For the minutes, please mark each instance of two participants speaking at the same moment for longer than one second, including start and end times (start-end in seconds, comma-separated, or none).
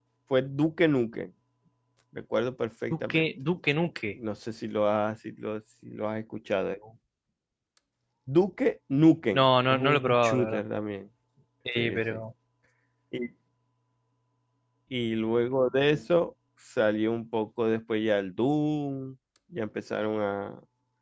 9.3-10.6